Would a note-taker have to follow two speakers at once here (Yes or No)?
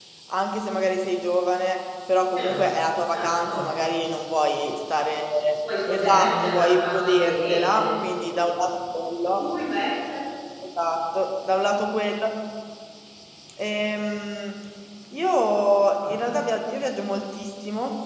Yes